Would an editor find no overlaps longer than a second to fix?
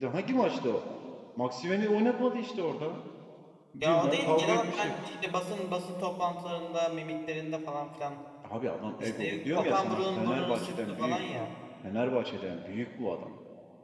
No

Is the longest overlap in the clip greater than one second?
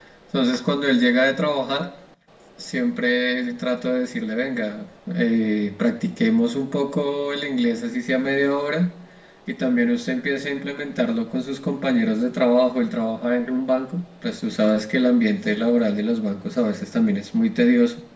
No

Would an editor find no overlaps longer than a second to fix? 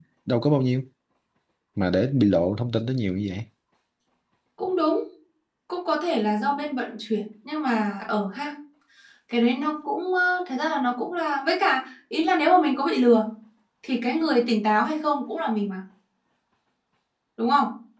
Yes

